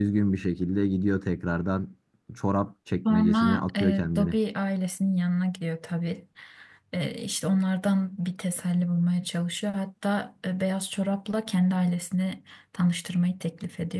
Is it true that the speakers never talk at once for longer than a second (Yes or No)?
No